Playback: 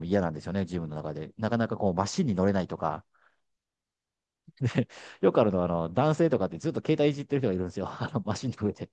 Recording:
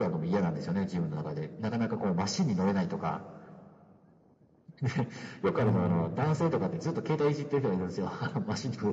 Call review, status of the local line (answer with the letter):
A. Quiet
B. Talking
B